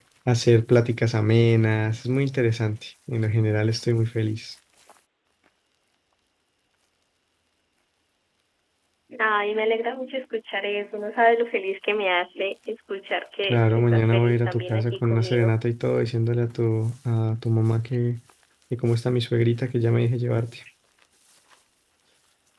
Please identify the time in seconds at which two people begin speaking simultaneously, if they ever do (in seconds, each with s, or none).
13.4 s